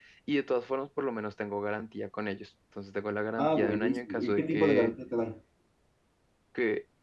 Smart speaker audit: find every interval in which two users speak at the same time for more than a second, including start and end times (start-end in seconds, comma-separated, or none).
3.4-4.9